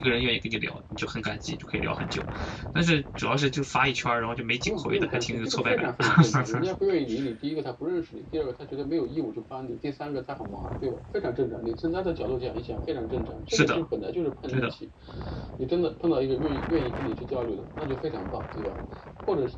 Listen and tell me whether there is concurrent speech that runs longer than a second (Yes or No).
Yes